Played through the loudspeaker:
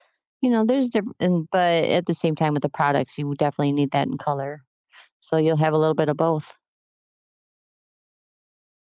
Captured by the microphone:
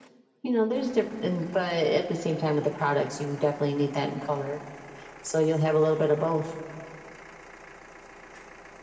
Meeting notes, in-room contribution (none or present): none